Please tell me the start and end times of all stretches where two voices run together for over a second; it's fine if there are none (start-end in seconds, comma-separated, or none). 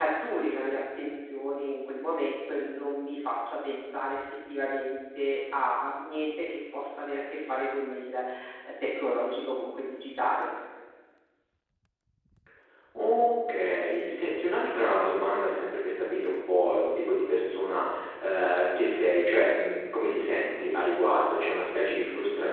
none